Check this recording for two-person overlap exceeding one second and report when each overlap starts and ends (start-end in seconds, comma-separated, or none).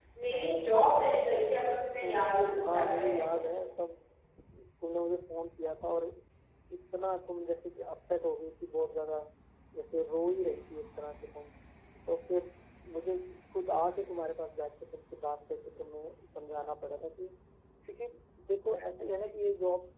2.0-3.4